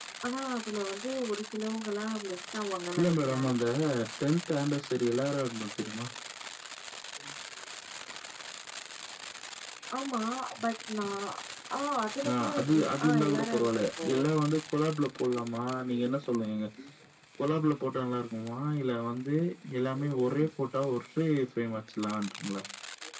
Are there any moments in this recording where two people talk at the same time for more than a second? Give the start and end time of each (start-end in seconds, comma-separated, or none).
12.3-14.1